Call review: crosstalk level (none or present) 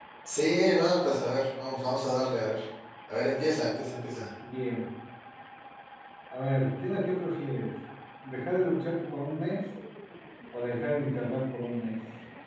none